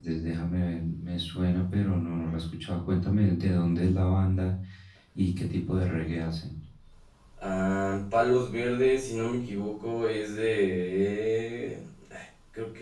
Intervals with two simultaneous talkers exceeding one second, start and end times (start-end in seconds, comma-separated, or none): none